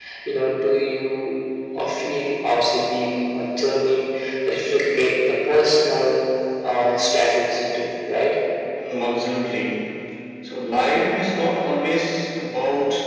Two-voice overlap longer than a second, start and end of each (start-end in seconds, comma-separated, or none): none